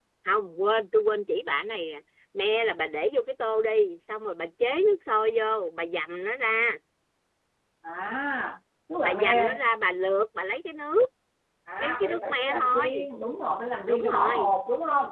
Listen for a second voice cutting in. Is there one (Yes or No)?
Yes